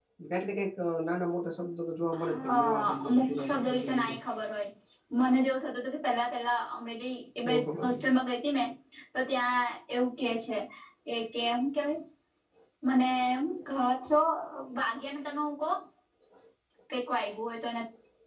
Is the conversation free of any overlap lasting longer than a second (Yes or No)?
No